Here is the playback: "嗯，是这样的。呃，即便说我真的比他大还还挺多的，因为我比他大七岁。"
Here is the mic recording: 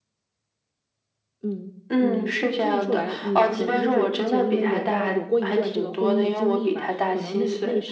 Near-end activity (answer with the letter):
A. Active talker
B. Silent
A